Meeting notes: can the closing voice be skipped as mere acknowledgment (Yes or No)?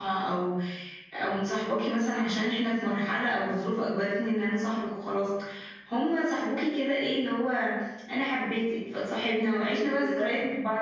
Yes